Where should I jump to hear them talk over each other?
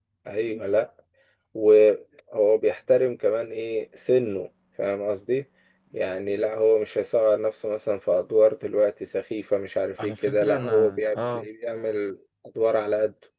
10.0 s

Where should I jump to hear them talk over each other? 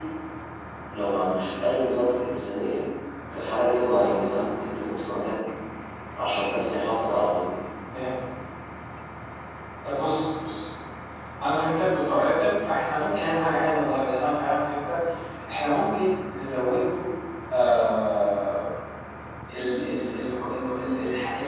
none

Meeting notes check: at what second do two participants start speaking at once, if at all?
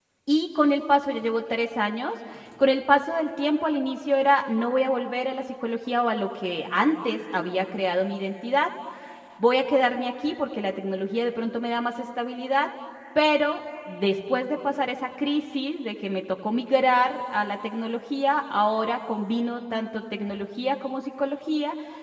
none

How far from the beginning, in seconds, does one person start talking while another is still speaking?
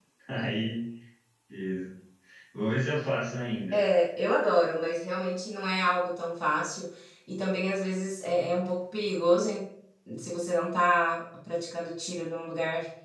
none

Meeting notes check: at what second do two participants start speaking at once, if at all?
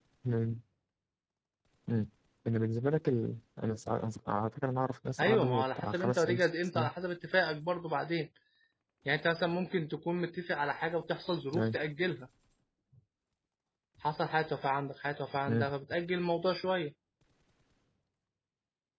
5.2 s

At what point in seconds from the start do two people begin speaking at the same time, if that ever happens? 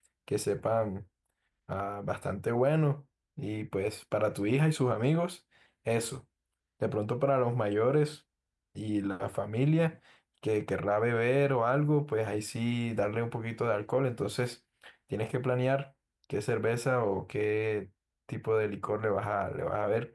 none

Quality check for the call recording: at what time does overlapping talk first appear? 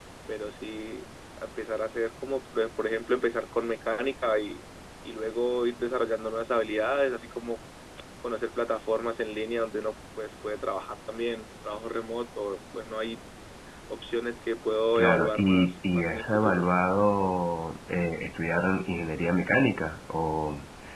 15.0 s

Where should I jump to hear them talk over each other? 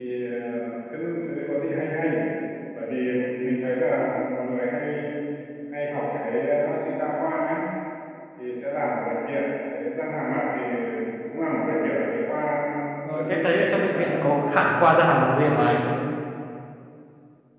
13.2 s

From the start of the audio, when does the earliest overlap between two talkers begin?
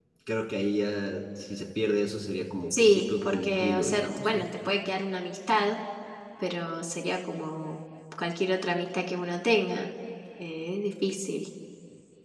2.7 s

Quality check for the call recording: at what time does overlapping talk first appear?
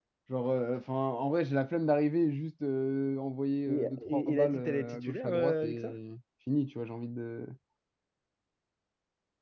3.7 s

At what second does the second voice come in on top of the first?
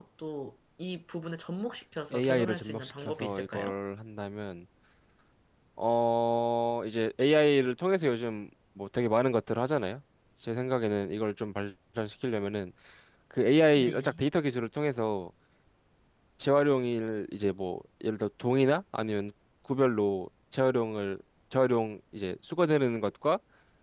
2.1 s

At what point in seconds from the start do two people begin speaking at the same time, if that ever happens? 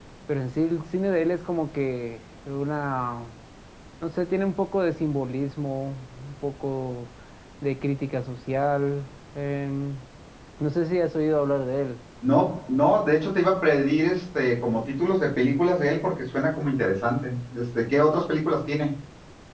none

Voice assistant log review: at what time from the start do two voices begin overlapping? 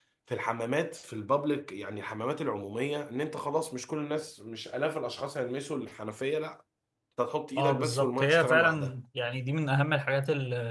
7.6 s

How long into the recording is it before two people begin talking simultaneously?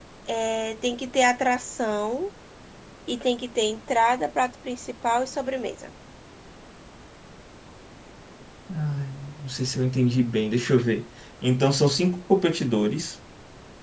none

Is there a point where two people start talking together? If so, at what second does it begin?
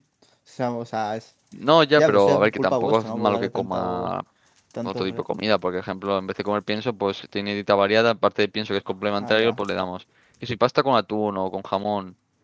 2.0 s

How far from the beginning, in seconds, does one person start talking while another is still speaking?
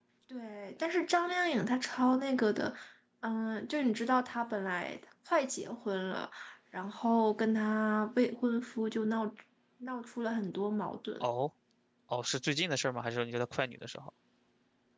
none

